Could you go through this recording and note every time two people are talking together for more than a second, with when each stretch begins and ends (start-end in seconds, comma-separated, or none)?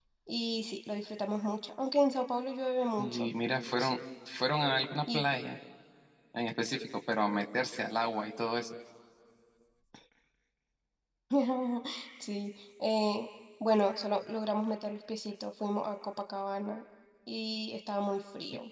none